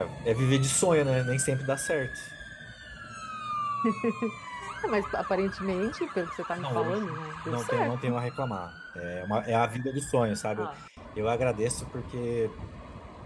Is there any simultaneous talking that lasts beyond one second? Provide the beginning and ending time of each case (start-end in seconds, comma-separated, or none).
6.6-8.1